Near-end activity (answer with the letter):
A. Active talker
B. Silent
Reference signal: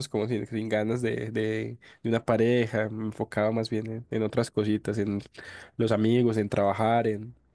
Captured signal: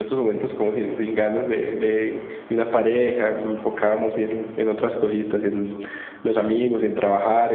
B